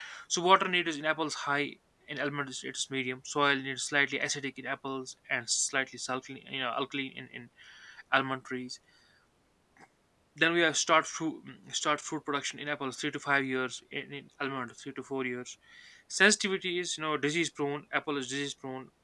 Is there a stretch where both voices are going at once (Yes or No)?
No